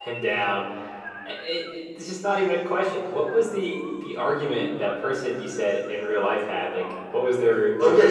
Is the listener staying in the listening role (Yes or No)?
No